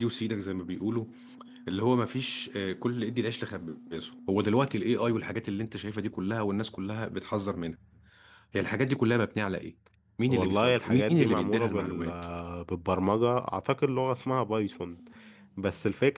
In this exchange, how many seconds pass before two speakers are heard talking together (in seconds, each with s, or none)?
10.3 s